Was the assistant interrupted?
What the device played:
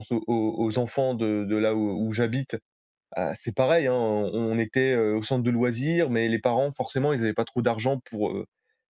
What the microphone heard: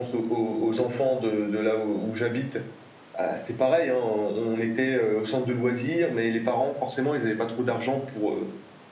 No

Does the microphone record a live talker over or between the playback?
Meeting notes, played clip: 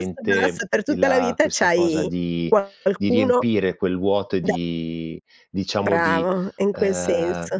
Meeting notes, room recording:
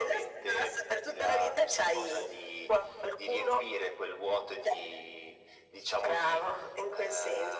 No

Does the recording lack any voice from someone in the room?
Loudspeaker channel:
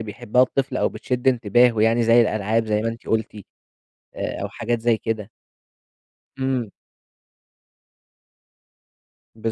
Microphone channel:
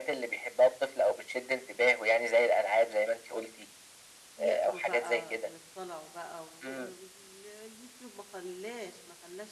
No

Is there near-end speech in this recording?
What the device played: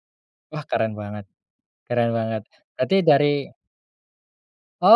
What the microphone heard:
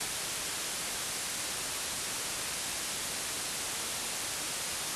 No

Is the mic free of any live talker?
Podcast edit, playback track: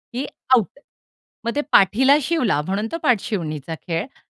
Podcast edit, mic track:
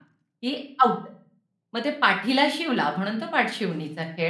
Yes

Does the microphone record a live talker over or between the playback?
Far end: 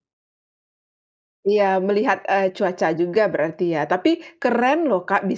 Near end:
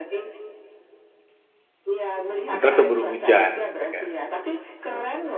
Yes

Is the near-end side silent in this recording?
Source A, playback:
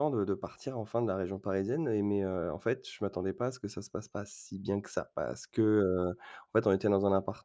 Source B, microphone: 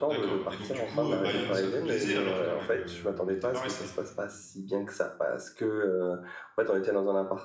No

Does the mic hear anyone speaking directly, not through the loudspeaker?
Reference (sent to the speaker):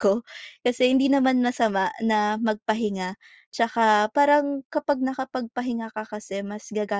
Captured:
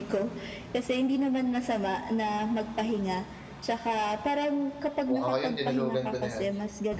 Yes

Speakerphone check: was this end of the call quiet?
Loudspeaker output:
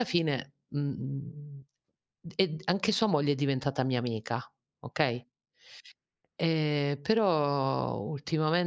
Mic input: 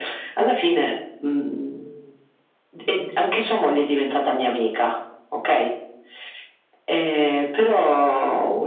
Yes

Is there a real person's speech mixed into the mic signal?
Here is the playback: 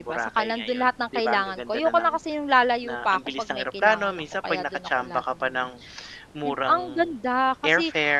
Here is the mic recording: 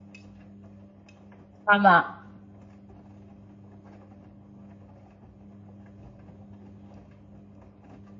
Yes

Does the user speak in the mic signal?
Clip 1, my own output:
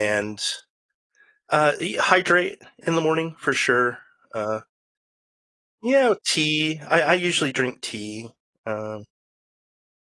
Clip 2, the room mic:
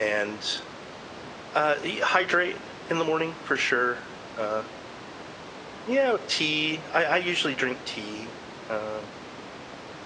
No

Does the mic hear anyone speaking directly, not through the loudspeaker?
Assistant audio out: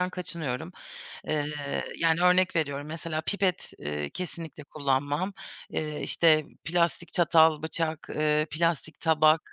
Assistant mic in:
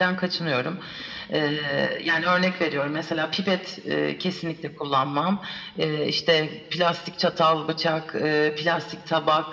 No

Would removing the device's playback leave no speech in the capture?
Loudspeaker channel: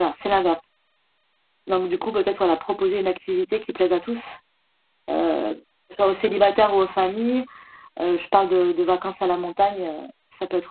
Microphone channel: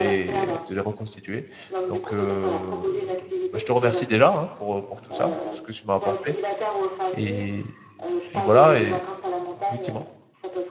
No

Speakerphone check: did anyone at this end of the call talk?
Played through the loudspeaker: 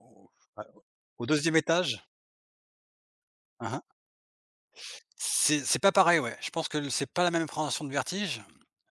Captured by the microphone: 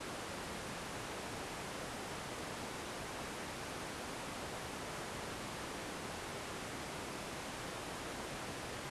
No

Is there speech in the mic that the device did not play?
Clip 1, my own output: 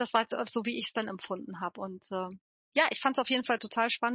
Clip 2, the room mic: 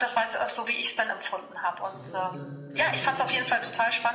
Yes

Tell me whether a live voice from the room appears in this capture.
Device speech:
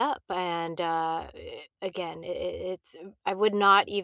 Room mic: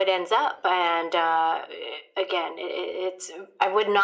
No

